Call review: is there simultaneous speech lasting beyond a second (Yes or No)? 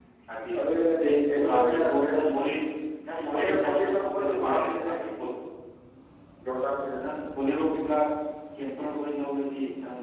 Yes